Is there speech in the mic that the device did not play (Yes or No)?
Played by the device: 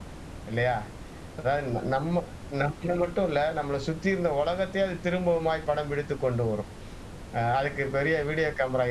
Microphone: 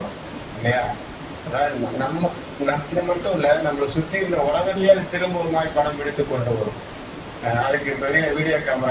Yes